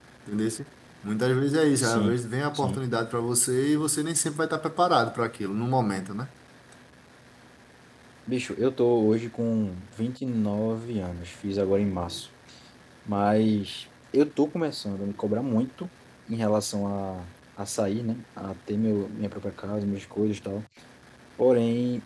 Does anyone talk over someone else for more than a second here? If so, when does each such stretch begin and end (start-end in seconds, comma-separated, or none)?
none